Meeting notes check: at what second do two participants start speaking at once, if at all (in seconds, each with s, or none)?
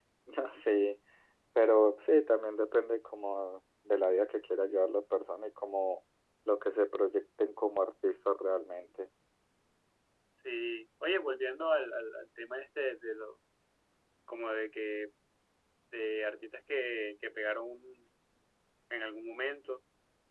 none